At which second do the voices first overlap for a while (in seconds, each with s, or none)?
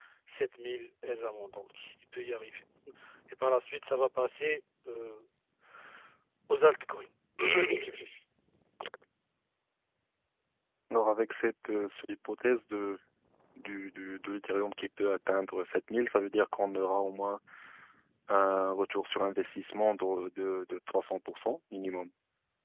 none